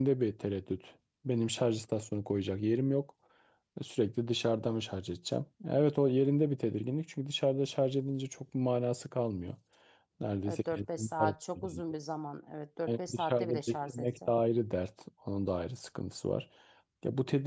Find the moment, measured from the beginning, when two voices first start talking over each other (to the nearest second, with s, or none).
10 s